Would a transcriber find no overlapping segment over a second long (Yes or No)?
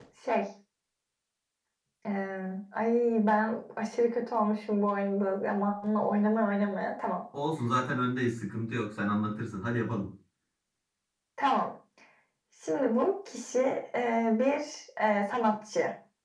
Yes